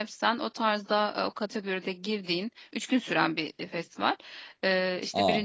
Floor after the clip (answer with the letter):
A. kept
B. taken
A